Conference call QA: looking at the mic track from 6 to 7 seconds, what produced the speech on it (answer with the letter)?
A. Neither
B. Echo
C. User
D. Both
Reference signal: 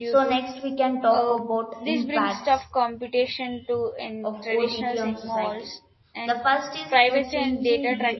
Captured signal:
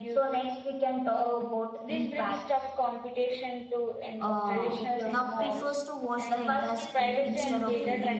D